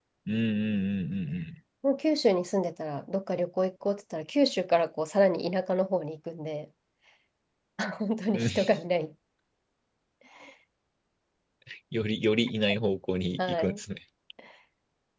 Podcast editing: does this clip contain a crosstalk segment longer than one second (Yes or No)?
No